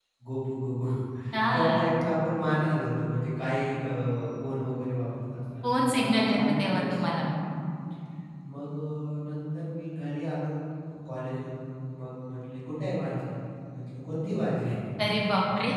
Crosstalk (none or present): present